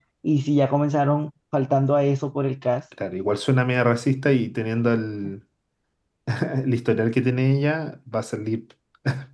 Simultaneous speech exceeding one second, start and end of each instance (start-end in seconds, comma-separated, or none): none